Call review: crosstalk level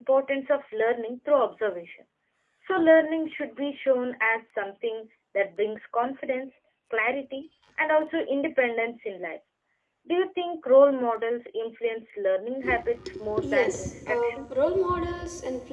present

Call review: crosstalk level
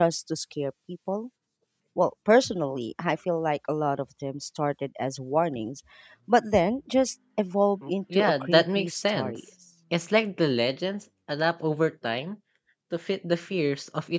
present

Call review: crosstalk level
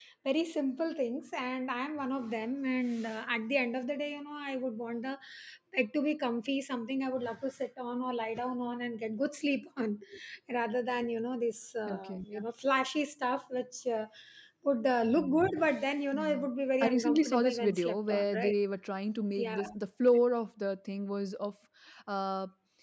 present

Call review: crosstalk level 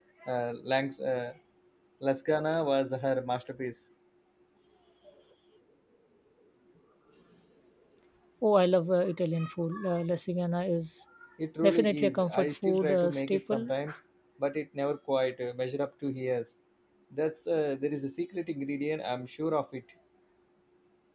present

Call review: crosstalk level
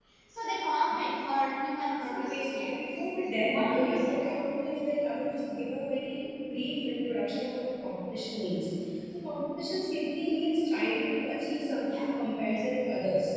present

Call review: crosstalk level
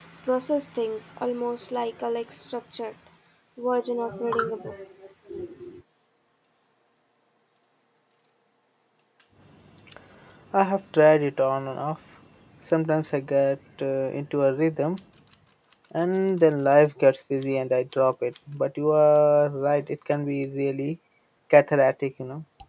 none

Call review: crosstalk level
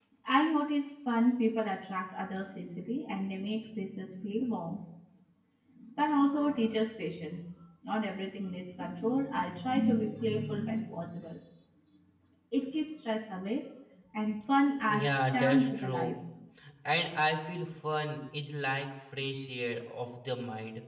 present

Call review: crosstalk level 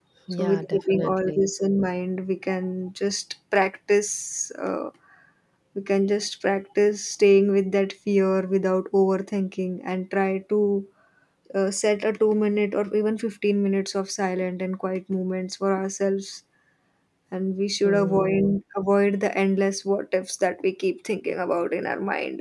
present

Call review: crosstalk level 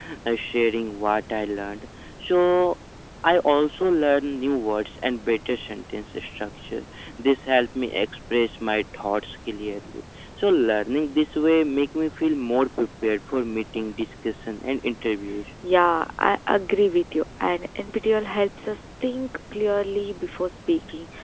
none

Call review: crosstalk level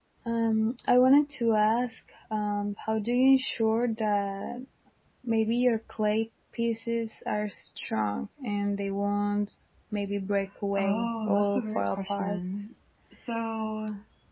present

